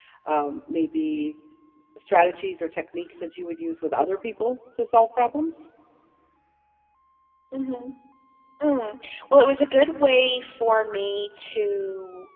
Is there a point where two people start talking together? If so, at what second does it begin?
none

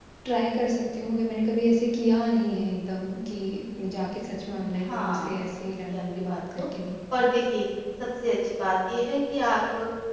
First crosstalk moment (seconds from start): 4.8 s

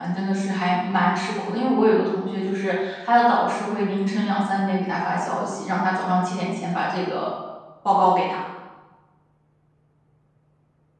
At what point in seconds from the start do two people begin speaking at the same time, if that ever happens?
none

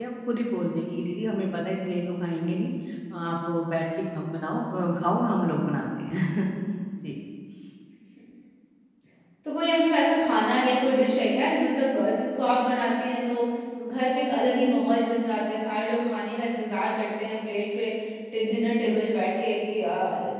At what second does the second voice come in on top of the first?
none

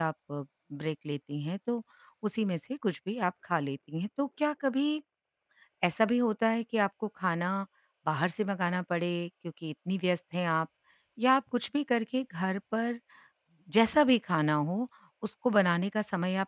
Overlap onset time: none

